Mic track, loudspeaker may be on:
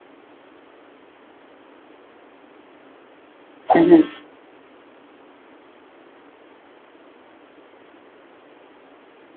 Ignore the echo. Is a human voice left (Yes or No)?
Yes